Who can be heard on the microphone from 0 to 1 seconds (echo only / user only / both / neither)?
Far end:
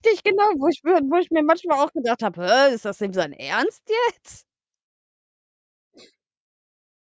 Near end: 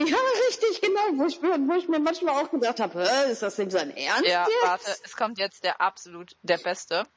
echo only